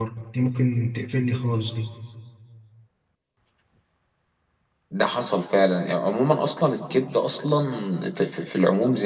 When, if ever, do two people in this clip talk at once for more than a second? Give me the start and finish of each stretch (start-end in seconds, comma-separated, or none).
none